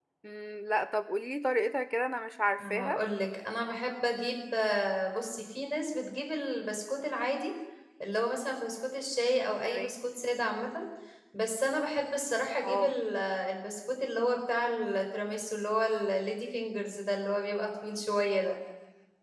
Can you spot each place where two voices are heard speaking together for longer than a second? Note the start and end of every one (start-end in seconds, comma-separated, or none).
none